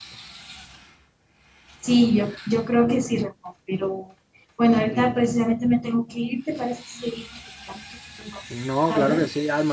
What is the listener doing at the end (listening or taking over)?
taking over